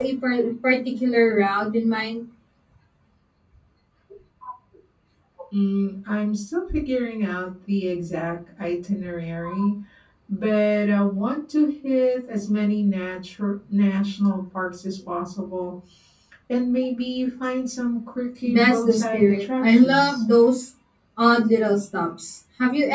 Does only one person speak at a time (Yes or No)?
No